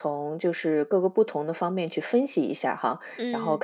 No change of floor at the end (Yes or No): Yes